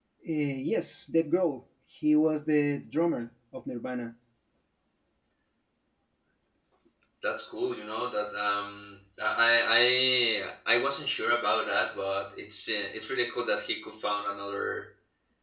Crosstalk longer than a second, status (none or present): none